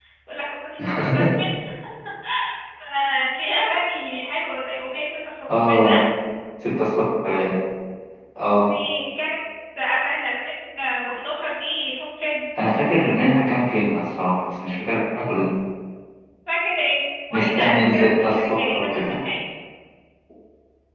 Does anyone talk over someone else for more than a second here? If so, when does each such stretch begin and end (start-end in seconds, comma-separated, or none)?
17.3-19.2